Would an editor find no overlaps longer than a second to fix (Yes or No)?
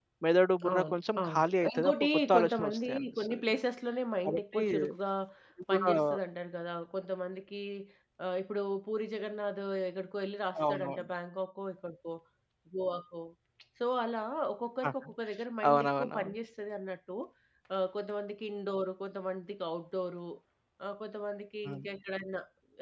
No